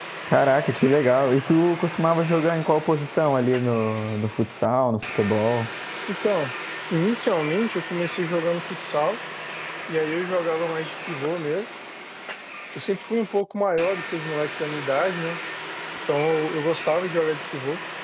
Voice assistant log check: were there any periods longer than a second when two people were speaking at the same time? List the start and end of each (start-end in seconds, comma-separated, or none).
none